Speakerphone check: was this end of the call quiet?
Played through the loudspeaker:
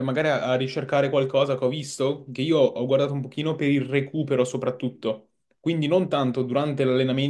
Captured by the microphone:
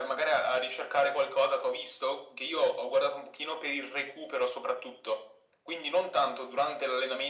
Yes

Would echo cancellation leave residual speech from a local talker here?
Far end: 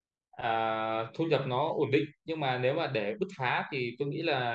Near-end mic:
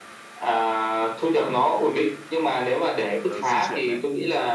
Yes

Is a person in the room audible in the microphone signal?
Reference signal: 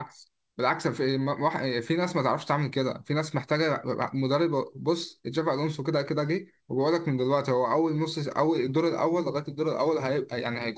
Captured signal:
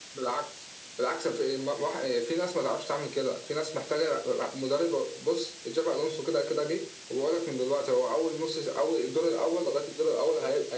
No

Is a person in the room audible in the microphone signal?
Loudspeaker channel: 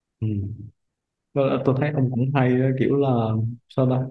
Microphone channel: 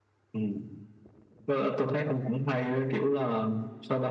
No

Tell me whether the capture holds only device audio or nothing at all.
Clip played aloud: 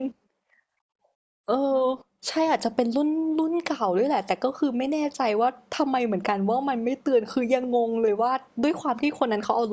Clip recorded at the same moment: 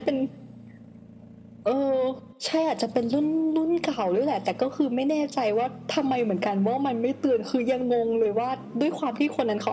Yes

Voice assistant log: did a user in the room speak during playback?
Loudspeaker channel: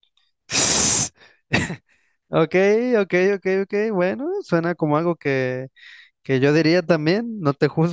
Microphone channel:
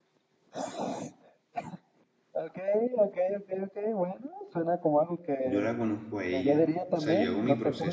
Yes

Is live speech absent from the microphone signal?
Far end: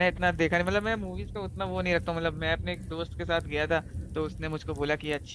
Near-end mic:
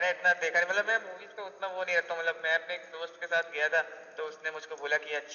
Yes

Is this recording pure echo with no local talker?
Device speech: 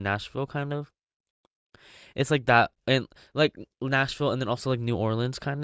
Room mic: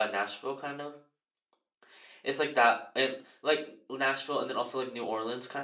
Yes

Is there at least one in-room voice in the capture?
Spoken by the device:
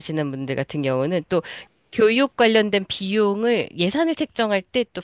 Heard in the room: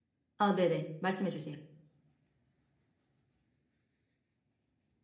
Yes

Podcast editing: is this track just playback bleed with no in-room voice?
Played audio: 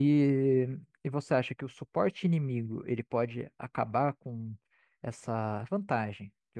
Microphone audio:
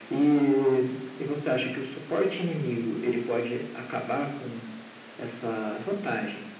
Yes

